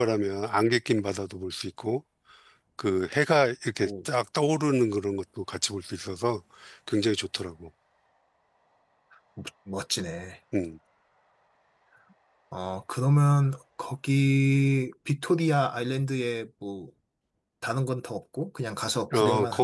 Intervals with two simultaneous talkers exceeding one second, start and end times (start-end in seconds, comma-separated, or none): none